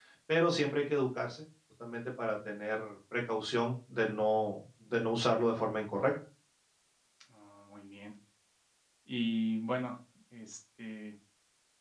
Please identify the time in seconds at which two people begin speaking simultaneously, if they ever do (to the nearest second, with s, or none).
none